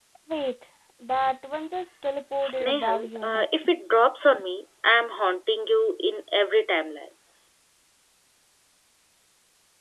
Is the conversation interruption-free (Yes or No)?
No